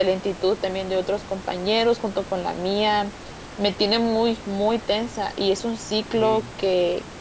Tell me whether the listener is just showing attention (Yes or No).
Yes